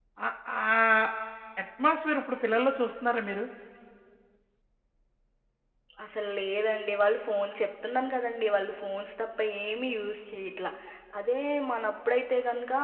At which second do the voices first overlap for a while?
none

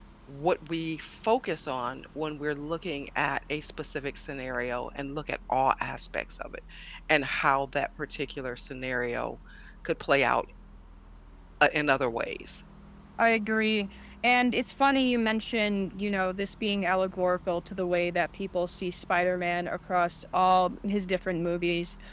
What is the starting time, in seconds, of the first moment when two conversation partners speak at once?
none

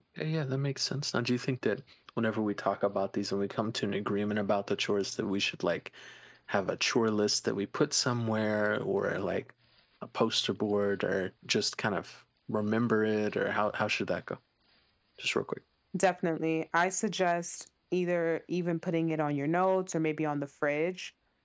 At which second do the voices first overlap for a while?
none

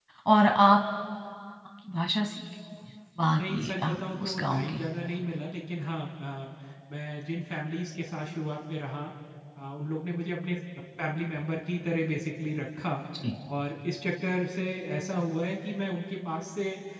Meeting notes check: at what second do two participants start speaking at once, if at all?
3.3 s

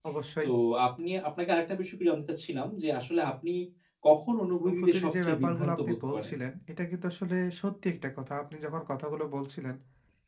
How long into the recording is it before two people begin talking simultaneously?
4.7 s

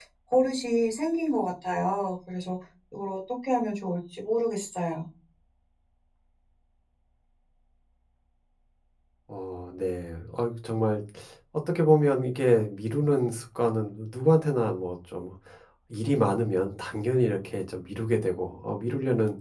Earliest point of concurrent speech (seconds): none

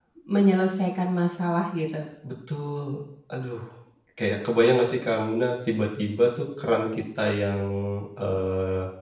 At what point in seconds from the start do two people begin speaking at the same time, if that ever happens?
none

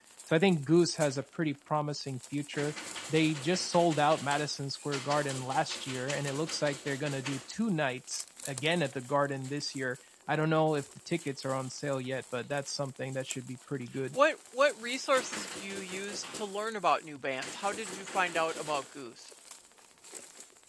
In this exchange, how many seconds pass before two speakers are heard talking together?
none

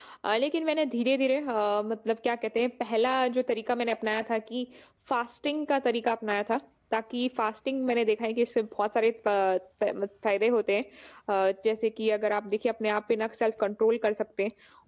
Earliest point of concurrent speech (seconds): none

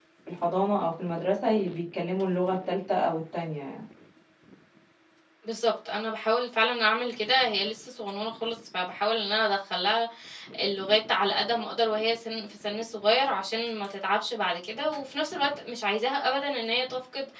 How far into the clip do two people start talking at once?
none

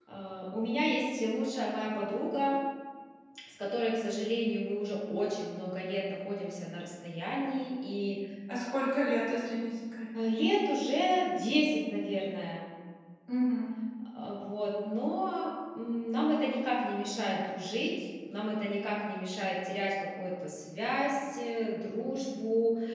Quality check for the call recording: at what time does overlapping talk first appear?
none

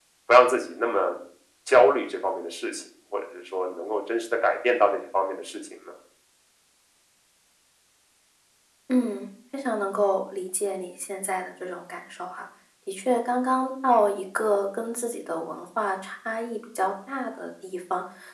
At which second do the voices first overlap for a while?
none

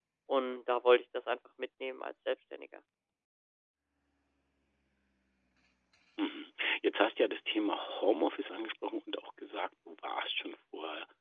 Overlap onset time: none

